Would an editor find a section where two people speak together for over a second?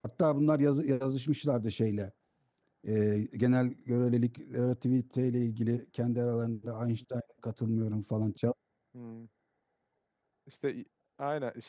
No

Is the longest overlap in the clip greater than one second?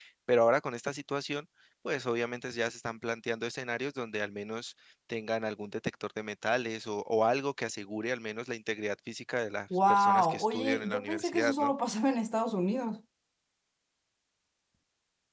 Yes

